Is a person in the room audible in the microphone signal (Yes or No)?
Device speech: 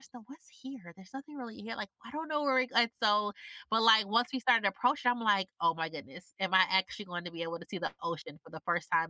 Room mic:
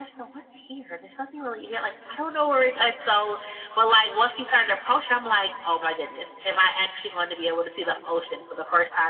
No